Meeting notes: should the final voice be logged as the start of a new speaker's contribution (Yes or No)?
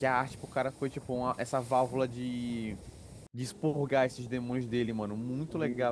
No